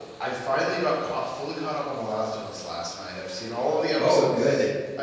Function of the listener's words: listening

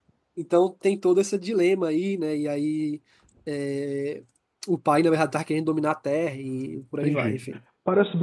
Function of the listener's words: taking over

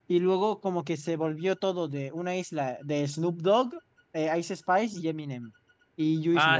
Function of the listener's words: taking over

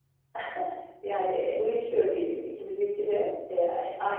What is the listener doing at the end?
listening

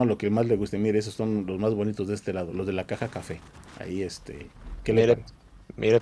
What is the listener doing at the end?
taking over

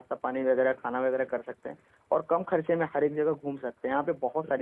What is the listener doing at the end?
listening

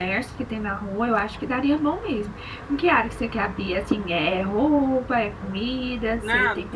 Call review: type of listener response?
taking over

